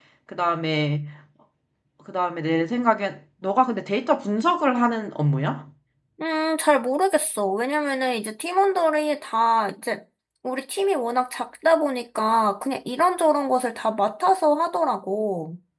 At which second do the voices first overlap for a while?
none

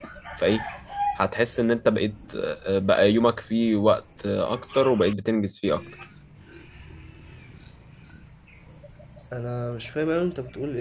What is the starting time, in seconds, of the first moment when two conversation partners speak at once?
none

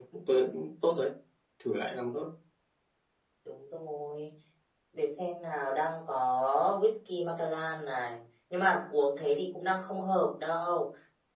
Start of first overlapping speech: none

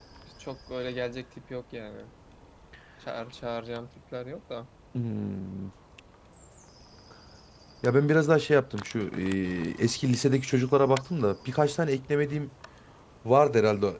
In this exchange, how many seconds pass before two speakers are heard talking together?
none

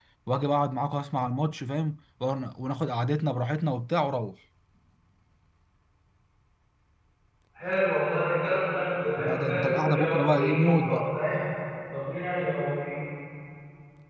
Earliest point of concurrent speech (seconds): 9.2 s

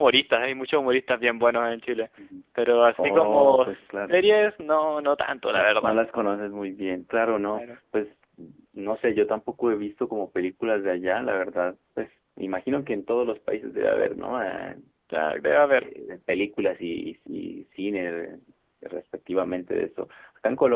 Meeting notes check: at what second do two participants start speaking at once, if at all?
3.0 s

